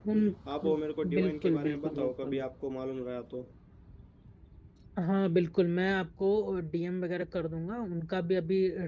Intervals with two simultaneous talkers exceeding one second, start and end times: 0.6-2.4

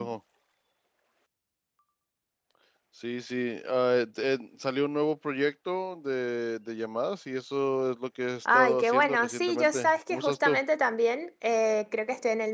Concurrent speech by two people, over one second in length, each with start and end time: 8.5-10.6

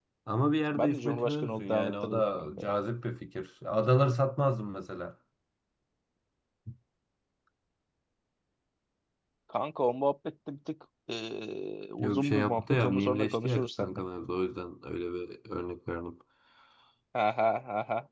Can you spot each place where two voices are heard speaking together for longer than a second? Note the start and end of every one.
0.7-2.7, 12.0-14.0

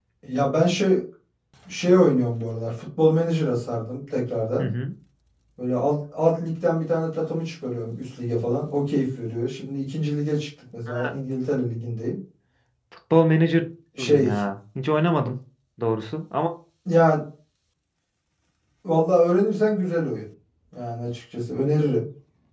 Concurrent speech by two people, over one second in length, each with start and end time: none

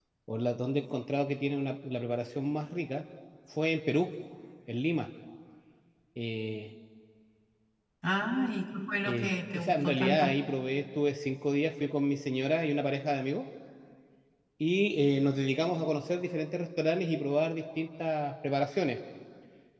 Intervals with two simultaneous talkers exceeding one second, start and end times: 9.0-10.3

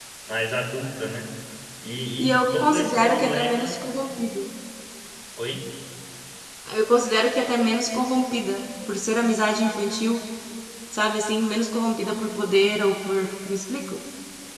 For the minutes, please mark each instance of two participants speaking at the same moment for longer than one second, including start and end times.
2.2-3.8

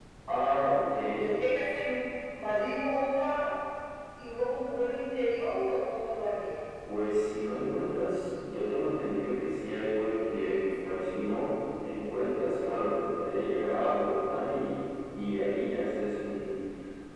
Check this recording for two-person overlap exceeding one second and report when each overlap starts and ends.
none

